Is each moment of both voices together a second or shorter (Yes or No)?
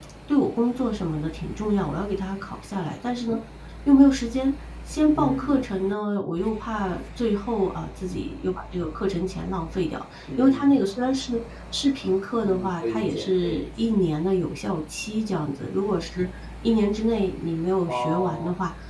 No